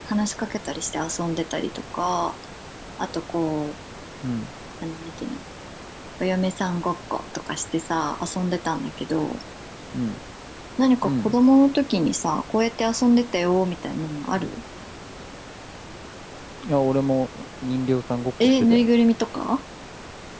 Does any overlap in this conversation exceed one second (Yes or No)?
No